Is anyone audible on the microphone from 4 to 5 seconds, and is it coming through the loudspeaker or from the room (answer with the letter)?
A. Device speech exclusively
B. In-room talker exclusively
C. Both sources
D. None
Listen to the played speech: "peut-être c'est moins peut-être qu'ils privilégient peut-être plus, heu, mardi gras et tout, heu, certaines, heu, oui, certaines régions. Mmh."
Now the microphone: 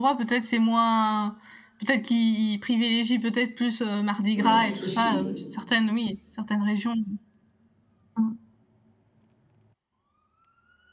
C